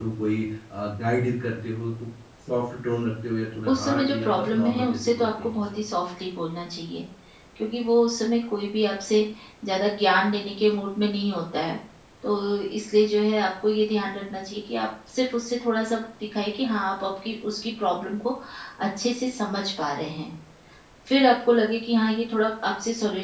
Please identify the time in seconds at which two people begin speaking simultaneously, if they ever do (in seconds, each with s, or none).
3.7 s